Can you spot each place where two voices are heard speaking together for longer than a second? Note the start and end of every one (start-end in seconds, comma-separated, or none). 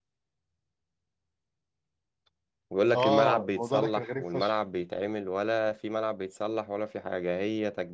2.9-4.6